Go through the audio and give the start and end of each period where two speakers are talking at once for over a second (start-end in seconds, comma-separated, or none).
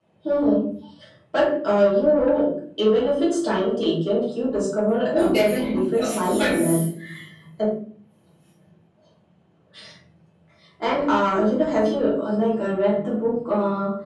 5.2-6.8